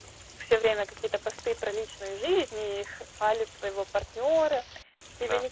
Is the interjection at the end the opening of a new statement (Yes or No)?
No